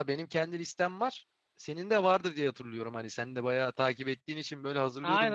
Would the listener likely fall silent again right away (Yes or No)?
No